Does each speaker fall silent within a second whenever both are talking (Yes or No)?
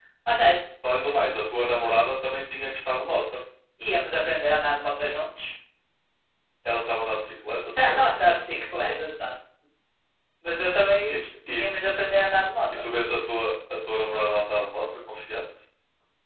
Yes